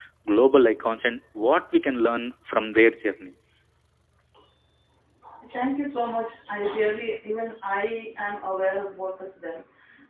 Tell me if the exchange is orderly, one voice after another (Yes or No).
Yes